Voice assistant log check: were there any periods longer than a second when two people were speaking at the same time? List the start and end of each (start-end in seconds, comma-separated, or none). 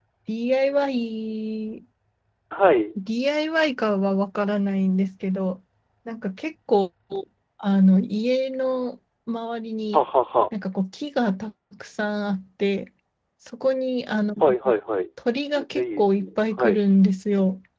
15.6-16.8